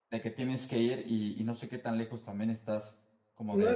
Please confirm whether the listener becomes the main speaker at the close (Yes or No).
Yes